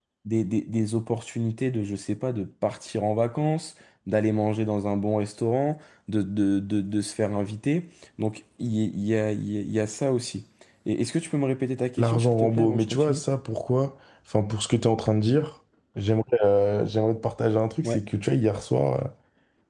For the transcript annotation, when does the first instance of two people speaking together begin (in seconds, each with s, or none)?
12.0 s